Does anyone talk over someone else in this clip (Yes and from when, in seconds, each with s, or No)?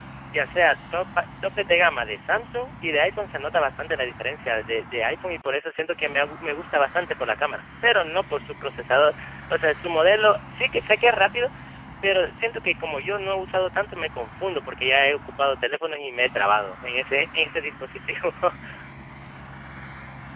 No